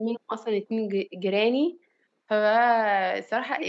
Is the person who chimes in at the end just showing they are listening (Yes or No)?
No